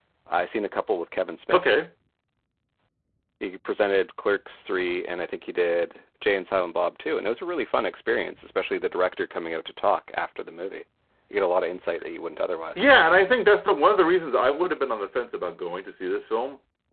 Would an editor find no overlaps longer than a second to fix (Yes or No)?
Yes